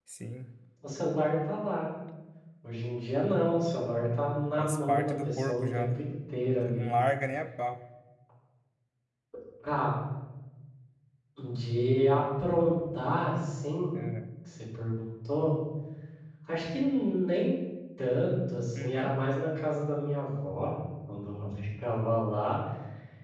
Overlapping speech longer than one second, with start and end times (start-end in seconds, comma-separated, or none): 4.6-6.0